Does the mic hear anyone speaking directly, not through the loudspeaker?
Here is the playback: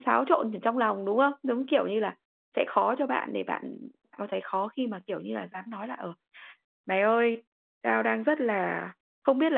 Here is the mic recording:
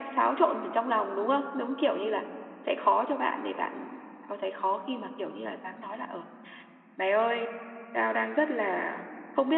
No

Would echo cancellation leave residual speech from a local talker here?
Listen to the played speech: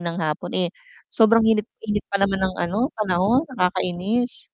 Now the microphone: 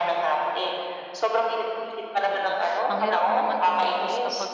Yes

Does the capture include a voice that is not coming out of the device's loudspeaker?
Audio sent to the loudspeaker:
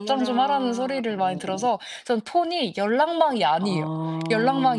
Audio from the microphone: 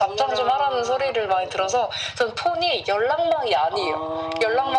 No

